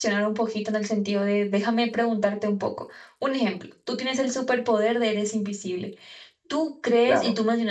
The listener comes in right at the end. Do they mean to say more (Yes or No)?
No